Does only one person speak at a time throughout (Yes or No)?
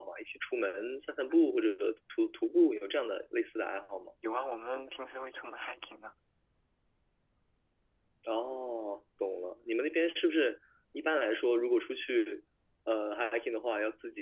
Yes